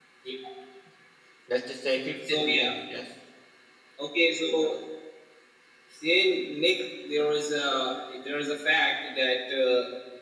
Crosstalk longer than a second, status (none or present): none